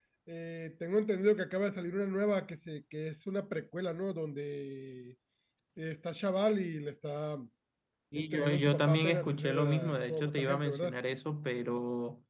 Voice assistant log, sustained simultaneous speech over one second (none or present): present